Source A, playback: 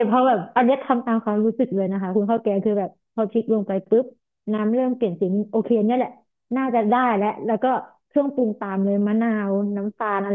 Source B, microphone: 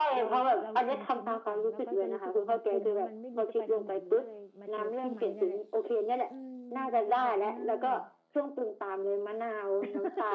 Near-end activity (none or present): present